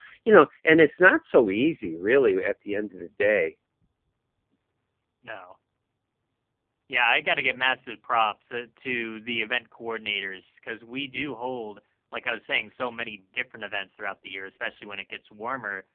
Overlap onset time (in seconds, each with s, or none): none